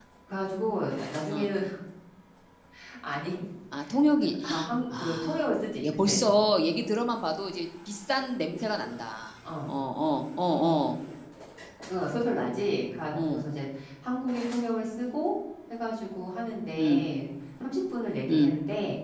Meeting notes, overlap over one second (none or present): none